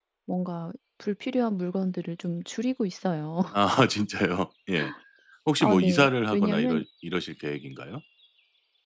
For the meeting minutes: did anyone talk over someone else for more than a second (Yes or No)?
Yes